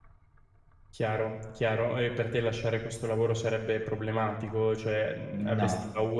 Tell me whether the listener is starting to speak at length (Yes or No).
No